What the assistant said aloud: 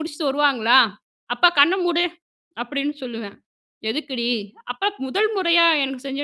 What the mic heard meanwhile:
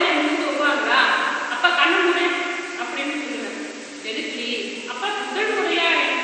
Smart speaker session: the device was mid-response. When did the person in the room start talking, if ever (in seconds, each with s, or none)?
none